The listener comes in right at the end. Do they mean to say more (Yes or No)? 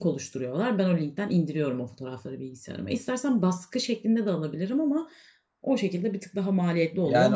Yes